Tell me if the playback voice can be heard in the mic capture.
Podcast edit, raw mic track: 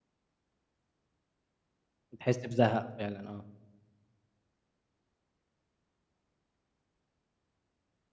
No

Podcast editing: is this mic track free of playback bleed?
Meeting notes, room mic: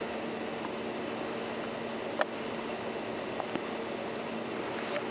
Yes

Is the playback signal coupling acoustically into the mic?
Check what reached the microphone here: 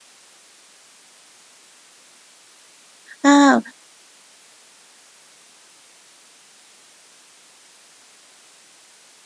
No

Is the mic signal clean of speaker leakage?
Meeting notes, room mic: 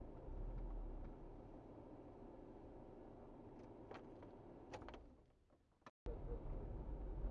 Yes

